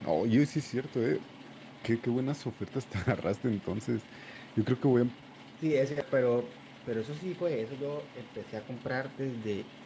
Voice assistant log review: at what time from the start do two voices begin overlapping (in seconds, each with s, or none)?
none